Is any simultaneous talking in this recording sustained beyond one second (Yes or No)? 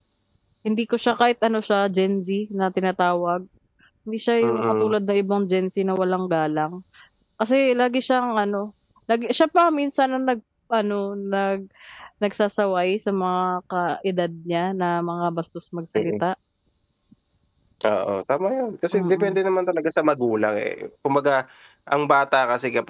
No